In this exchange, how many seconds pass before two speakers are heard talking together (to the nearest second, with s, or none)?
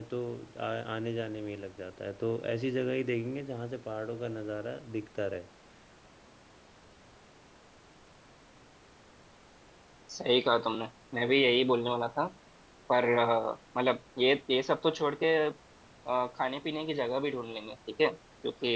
none